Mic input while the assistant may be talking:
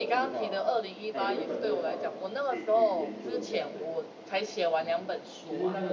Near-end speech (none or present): present